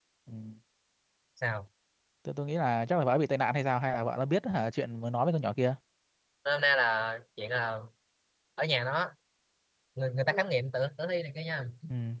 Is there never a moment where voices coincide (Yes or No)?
Yes